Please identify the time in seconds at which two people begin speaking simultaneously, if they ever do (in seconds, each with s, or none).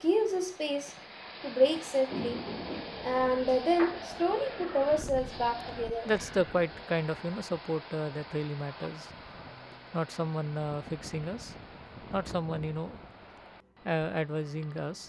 none